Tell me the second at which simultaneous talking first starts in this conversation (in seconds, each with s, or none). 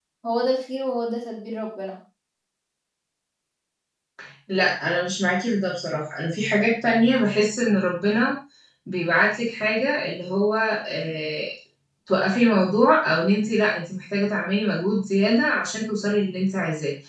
none